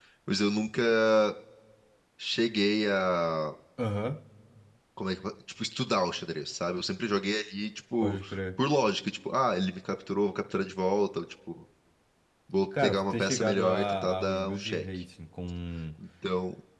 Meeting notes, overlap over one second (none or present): present